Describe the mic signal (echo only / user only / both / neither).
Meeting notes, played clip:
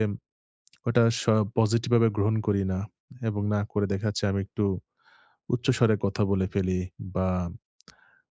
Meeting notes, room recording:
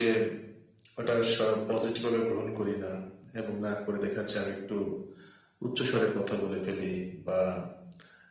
echo only